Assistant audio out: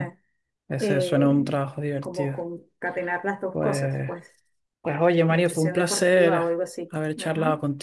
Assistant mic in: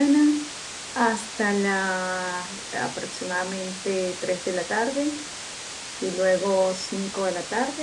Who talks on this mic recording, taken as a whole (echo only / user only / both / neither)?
user only